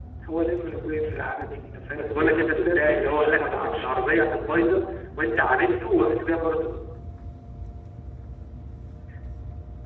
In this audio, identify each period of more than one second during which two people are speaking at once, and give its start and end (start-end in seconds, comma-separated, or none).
2.0-4.1